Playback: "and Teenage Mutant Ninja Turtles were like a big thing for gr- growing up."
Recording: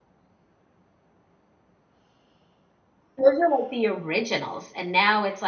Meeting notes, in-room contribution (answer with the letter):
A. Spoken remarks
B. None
A